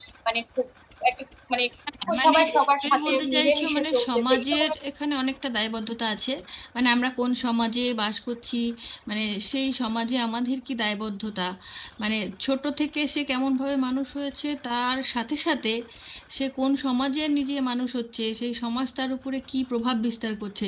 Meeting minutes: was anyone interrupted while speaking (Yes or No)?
Yes